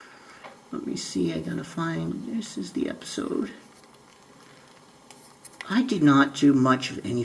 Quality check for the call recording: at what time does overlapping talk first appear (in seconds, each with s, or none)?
none